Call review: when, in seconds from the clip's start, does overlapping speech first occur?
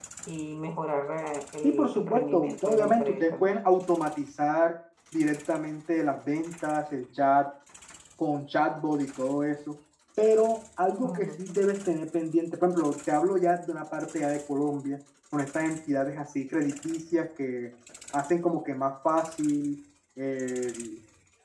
1.6 s

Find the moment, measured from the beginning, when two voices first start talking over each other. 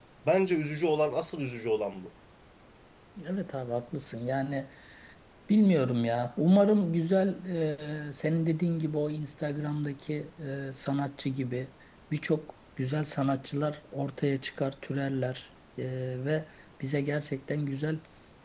none

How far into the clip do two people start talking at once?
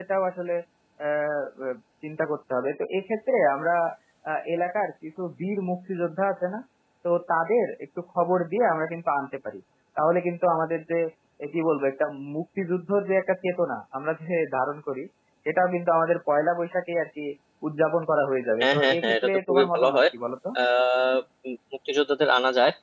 18.6 s

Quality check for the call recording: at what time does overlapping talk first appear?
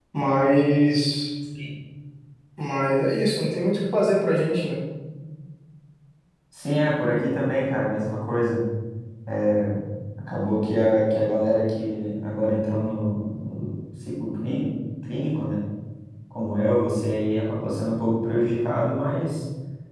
none

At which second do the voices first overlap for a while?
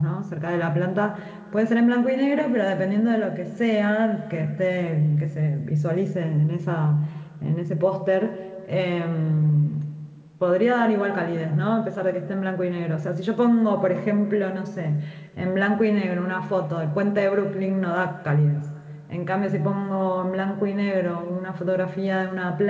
none

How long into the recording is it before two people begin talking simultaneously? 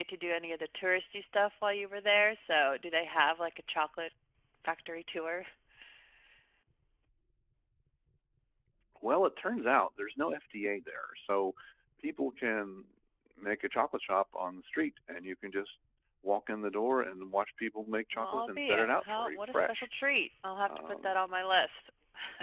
18.2 s

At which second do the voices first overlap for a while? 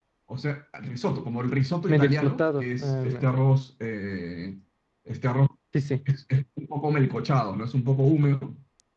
1.9 s

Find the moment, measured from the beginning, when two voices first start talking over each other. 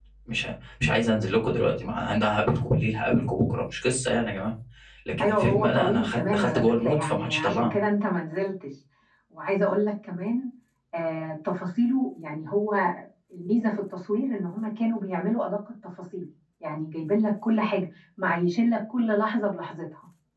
5.2 s

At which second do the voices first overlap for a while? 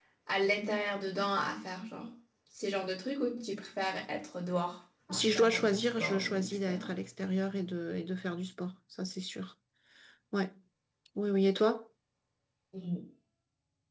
5.1 s

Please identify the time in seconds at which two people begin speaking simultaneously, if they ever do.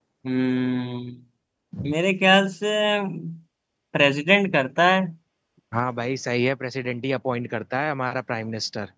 none

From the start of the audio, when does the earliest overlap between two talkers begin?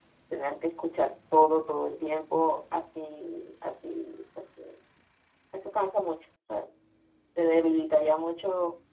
none

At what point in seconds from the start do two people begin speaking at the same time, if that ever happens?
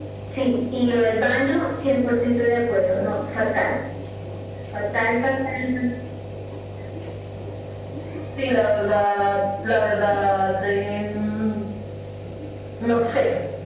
none

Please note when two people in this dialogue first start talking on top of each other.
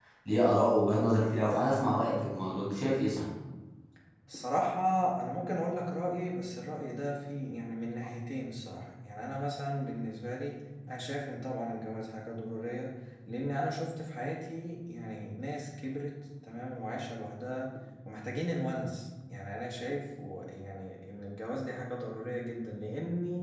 none

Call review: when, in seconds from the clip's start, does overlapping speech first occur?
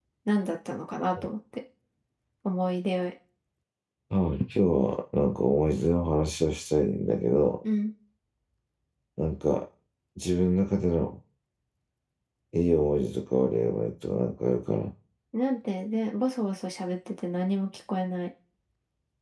none

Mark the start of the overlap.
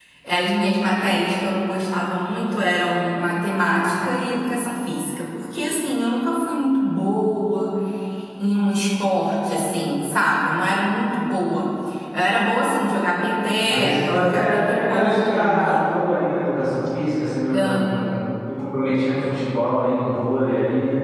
13.7 s

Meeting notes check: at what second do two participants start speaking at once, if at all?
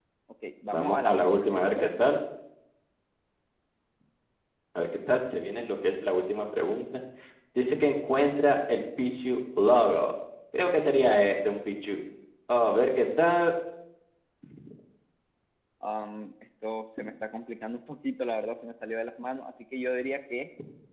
0.7 s

